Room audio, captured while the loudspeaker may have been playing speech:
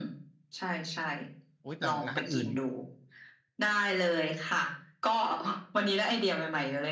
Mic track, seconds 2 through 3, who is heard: both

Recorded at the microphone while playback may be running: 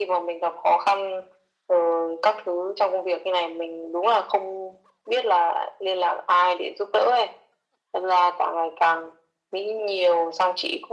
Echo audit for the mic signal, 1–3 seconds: echo only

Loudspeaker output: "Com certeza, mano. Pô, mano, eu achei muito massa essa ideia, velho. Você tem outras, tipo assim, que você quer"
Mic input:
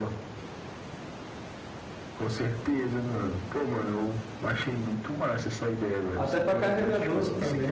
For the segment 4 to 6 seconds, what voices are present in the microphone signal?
echo only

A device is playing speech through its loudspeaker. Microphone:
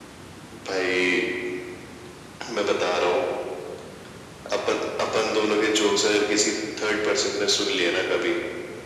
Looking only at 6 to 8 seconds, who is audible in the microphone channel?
echo only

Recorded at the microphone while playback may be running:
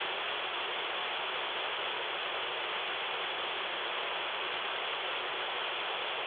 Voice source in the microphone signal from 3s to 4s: neither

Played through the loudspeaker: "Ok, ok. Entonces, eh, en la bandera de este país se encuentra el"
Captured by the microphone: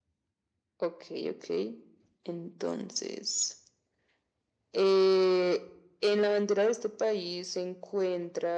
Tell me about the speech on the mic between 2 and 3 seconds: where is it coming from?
echo only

